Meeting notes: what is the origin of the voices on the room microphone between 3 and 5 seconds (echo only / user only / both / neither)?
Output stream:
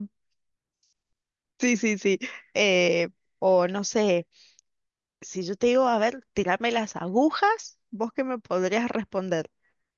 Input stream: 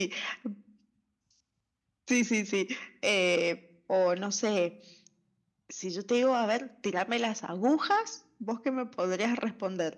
echo only